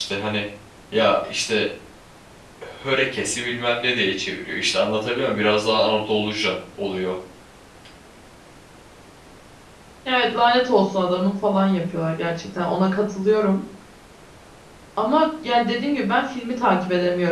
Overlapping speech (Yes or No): No